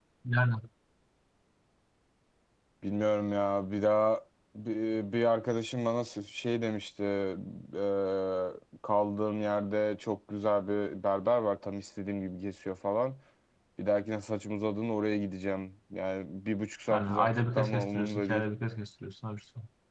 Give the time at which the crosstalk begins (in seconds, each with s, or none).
16.9 s